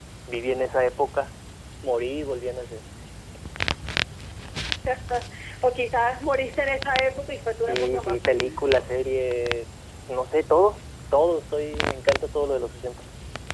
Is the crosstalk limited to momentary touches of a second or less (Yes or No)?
No